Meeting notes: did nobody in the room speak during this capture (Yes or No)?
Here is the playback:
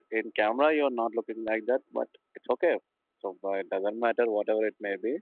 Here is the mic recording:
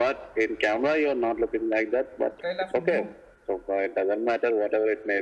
No